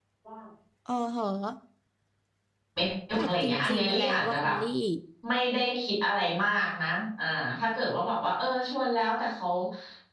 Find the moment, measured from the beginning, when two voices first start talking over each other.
3.2 s

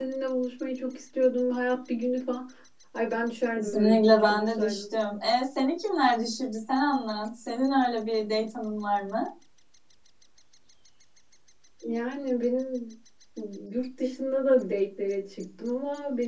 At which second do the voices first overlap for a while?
3.6 s

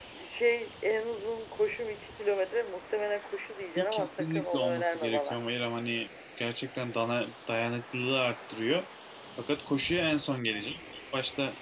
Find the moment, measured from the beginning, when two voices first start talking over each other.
3.8 s

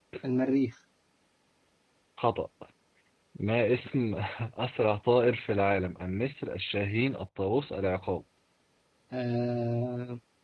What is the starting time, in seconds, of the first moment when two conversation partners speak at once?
none

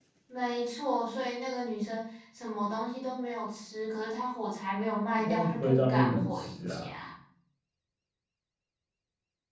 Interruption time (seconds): 5.1 s

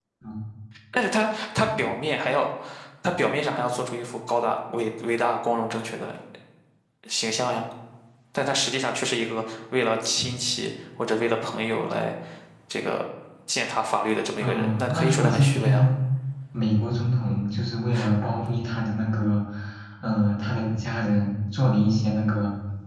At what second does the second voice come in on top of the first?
14.4 s

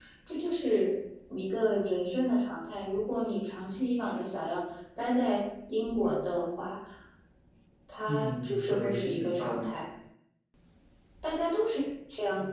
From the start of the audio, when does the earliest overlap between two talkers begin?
8.1 s

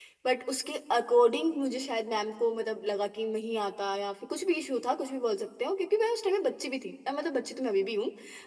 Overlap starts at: none

